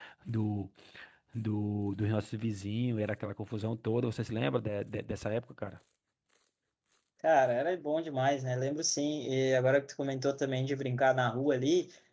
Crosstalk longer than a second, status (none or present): none